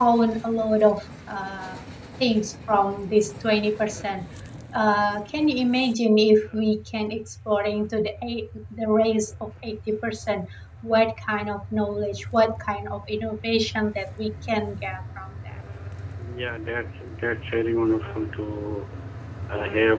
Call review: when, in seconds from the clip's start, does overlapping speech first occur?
none

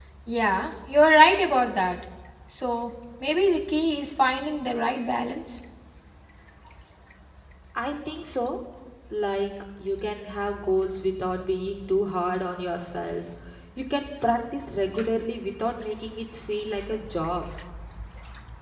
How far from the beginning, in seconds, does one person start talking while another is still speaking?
none

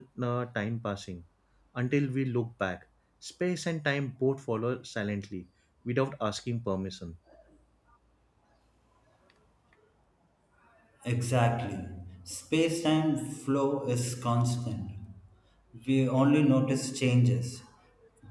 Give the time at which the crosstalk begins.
none

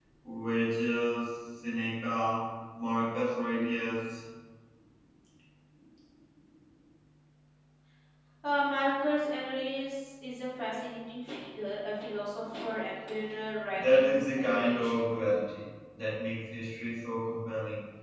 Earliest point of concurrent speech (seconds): 13.8 s

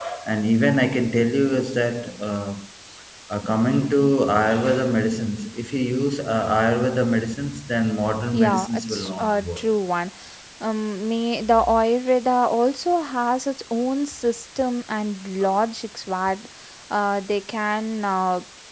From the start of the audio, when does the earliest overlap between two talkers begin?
8.3 s

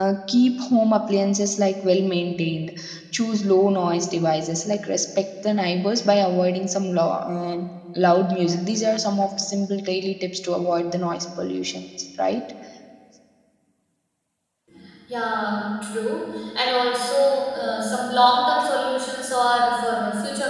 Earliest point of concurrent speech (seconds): none

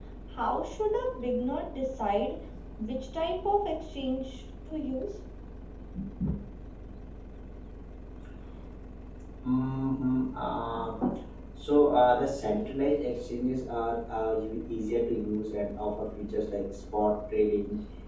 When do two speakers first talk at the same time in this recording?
none

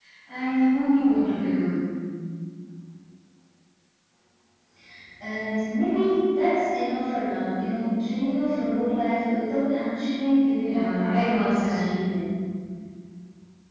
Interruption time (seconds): 10.6 s

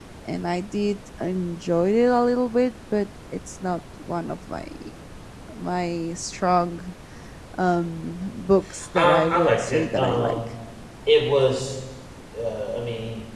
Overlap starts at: 8.7 s

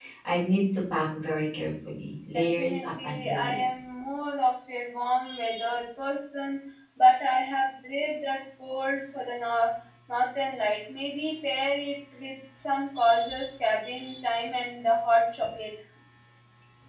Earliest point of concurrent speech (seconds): 2.3 s

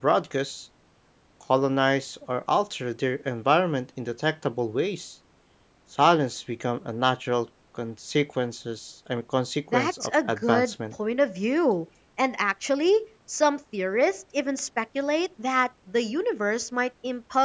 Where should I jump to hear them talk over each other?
9.7 s

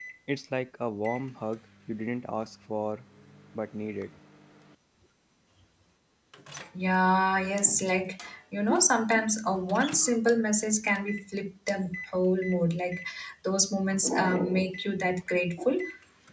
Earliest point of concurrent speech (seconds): none

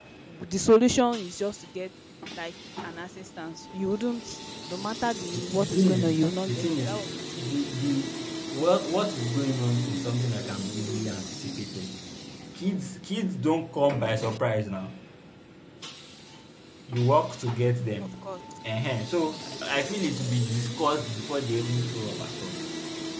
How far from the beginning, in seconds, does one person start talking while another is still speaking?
5.3 s

